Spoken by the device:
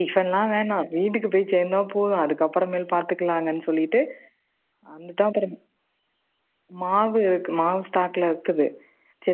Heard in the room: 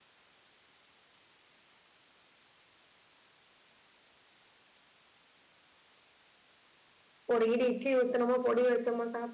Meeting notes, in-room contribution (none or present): present